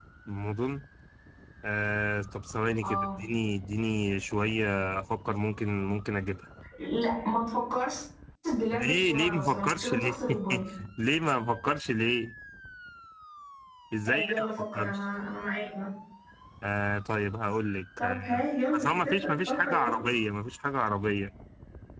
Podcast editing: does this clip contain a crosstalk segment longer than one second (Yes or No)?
Yes